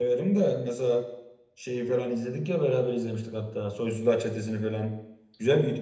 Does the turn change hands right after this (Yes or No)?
No